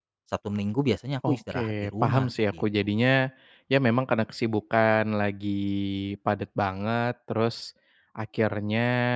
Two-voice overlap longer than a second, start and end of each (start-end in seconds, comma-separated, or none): 1.3-2.6